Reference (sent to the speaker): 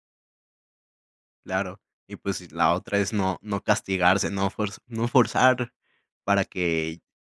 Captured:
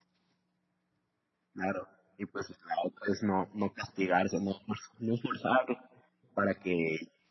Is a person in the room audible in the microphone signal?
No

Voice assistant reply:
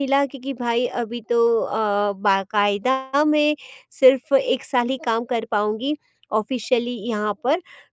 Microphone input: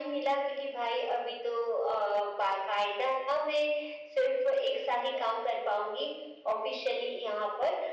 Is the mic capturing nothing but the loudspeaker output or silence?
Yes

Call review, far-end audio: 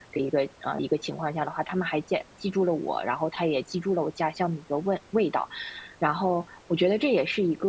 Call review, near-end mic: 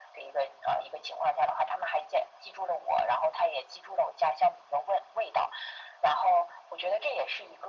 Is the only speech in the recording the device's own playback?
Yes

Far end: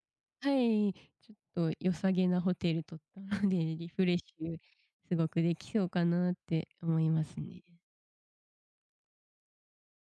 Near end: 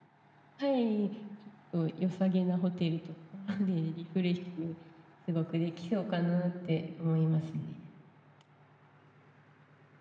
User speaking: No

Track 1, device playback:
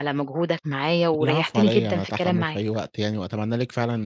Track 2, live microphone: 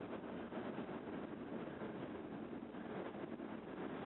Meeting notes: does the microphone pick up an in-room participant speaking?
No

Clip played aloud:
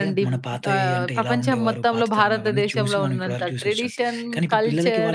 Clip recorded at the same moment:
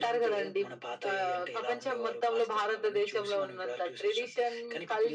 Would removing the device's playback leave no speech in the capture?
Yes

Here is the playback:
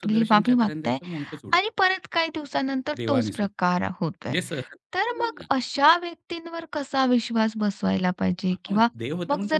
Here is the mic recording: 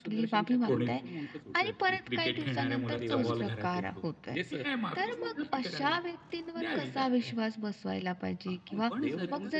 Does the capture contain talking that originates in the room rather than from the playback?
Yes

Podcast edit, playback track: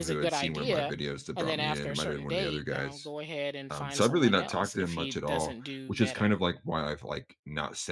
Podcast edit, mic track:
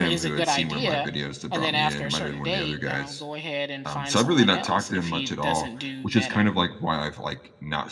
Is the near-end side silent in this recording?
Yes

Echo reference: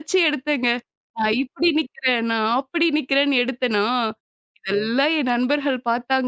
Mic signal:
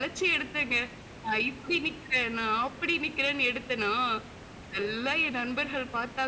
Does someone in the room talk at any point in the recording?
No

